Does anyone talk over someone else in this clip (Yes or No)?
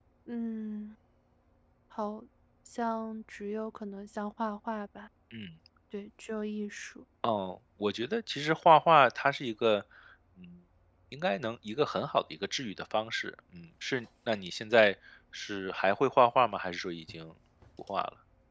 No